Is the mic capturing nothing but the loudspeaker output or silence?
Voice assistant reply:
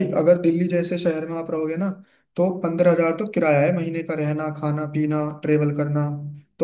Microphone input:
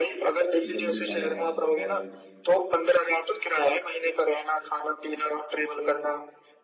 No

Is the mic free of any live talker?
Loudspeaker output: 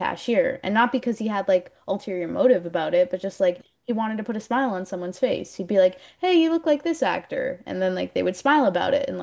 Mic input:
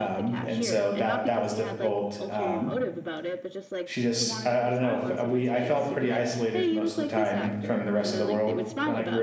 No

